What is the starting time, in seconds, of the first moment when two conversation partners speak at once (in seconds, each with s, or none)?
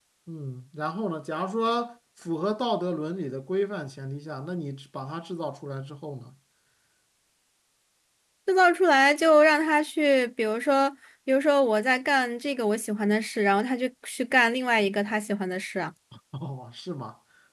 none